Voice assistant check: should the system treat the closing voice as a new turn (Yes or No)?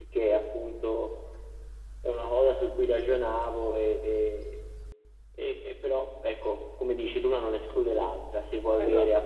No